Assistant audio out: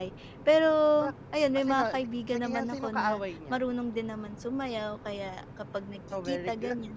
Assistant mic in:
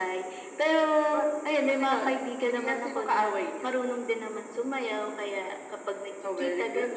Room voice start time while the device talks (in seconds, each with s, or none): none